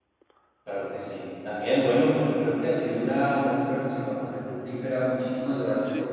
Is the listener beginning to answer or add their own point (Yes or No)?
No